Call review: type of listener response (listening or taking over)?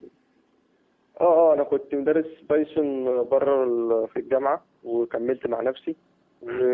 listening